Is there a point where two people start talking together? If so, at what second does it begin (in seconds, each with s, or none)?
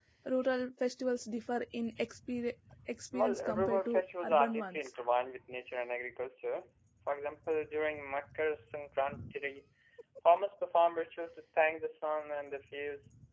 3.1 s